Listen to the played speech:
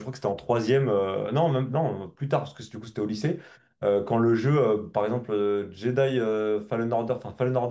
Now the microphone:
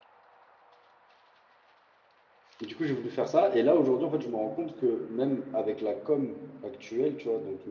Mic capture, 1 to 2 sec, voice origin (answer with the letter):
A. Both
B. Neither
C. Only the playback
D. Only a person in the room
B